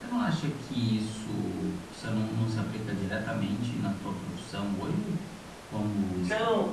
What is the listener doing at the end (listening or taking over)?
listening